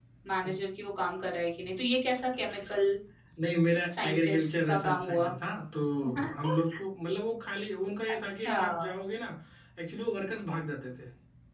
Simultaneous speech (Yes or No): Yes